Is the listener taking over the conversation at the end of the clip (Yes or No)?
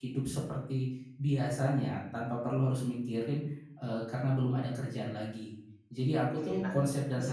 Yes